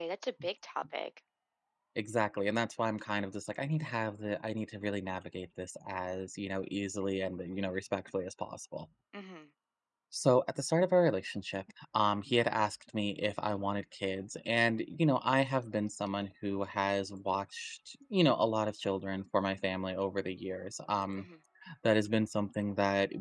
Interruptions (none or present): none